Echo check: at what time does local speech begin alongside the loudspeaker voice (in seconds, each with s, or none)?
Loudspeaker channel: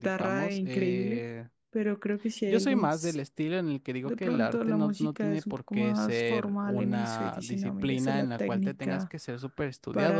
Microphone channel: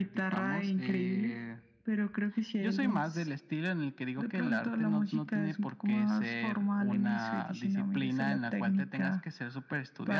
none